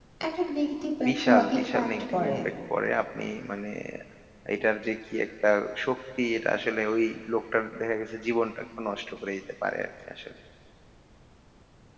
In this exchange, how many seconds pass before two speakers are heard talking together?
1.1 s

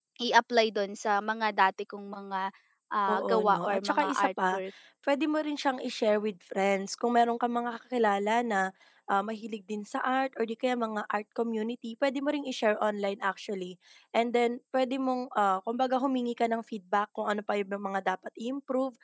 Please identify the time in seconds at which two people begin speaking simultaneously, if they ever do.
3.1 s

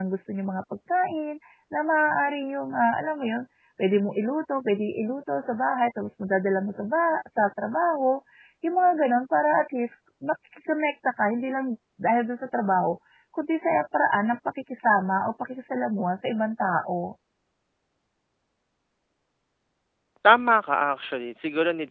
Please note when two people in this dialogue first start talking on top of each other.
none

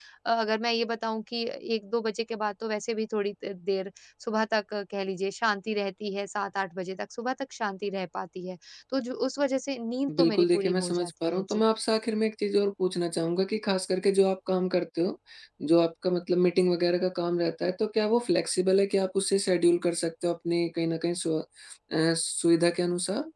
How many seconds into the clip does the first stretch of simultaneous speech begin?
10.1 s

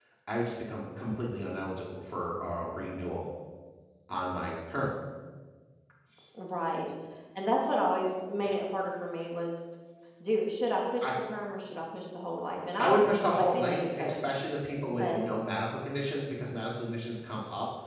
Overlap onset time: 12.8 s

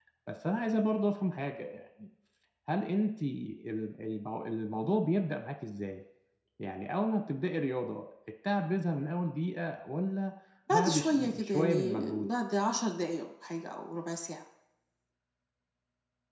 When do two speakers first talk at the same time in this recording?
10.7 s

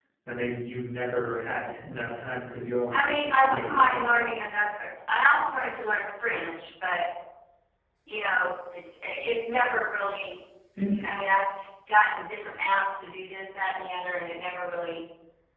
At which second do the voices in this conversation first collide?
2.9 s

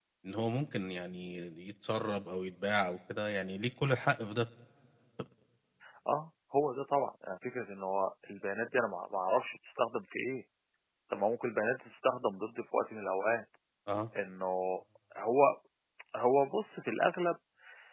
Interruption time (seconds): none

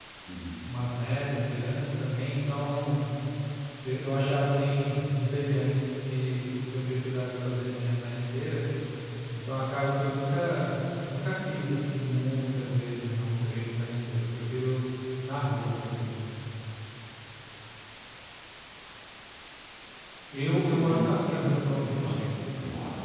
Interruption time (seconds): 20.7 s

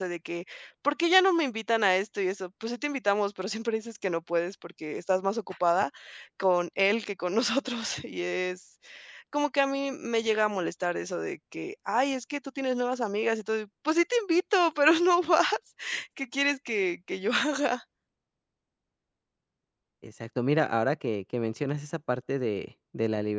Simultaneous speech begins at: none

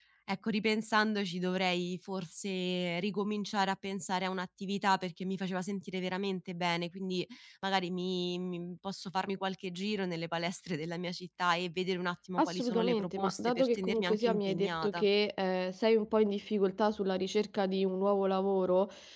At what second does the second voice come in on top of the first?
12.4 s

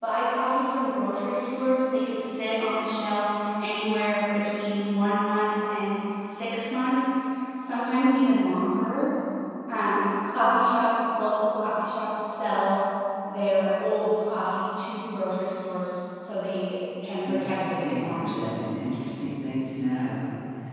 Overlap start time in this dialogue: 17.3 s

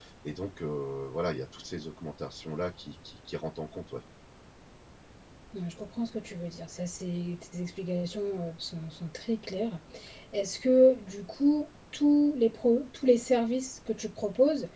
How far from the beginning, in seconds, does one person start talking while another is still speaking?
none

